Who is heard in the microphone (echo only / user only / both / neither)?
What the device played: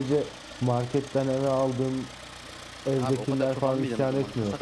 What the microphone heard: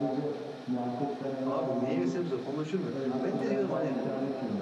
both